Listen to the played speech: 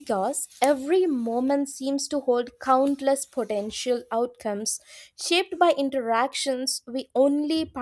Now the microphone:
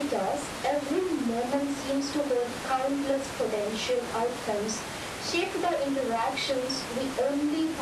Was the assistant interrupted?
No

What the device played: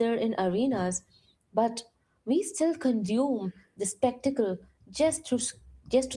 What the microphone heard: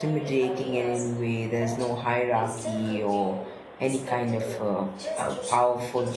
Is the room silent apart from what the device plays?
No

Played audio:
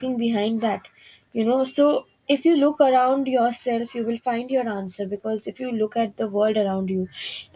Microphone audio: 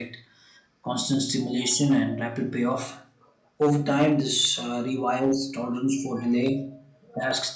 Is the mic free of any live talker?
No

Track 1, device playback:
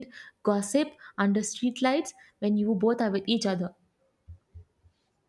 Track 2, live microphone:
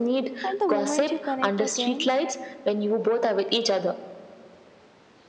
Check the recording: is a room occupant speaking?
Yes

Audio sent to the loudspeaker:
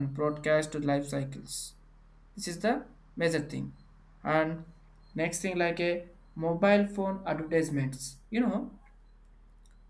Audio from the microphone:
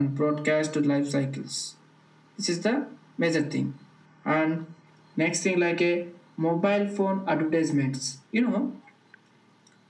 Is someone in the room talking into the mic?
No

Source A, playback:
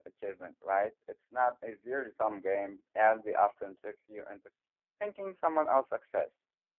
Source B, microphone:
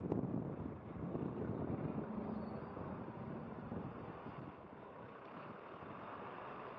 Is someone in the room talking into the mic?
No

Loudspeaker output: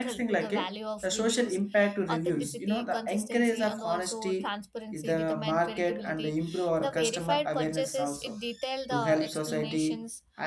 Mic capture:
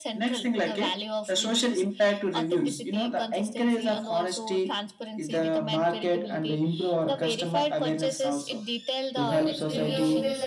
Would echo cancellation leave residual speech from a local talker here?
Yes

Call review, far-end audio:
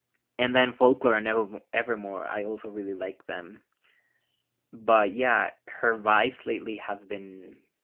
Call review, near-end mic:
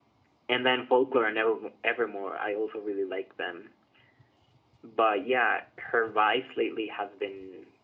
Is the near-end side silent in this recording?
Yes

